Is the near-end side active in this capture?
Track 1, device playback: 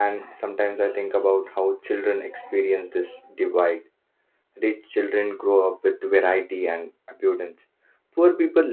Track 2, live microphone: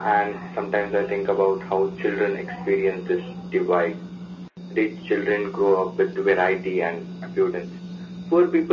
No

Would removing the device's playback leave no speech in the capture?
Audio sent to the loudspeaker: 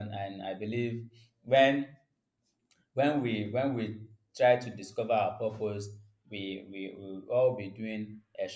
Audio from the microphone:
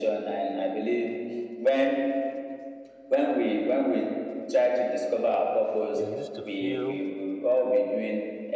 No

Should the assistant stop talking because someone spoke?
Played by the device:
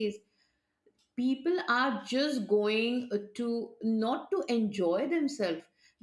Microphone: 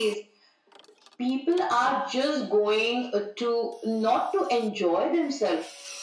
No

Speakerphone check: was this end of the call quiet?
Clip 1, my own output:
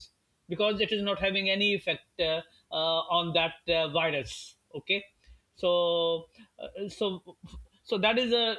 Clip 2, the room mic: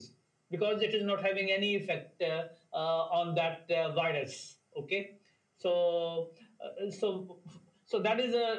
Yes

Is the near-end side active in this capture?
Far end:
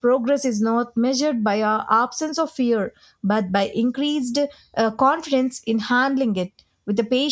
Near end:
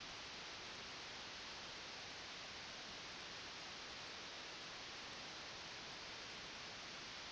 No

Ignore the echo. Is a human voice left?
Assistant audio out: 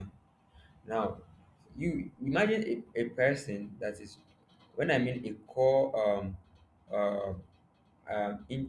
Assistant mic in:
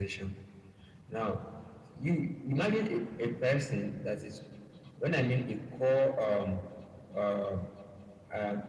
No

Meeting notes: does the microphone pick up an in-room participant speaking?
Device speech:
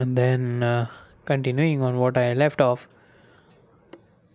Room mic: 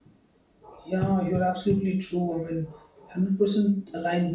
Yes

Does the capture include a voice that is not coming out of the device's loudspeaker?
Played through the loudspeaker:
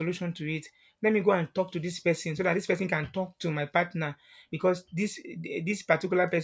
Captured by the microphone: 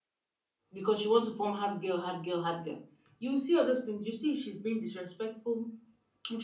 Yes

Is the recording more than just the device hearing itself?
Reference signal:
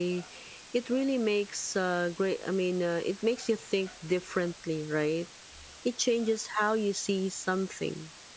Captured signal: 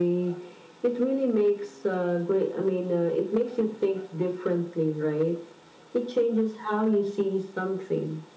No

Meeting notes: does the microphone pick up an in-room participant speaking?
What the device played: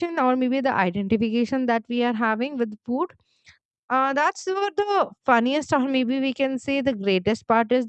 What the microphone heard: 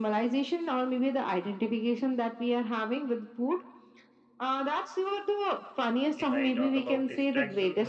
Yes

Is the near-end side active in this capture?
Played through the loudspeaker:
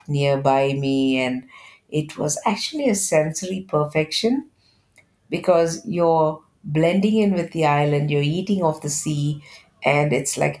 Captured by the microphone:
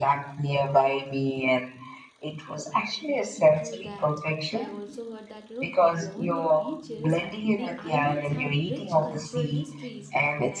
Yes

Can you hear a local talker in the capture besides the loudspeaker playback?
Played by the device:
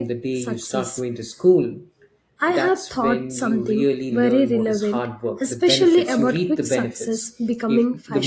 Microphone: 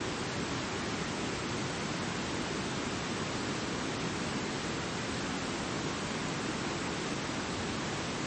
No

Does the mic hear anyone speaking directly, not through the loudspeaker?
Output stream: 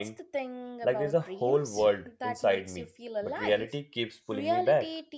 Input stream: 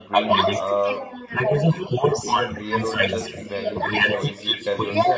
Yes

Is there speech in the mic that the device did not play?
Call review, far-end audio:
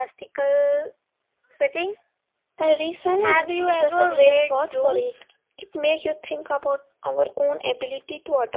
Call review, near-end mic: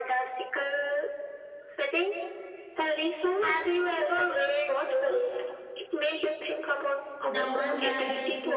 Yes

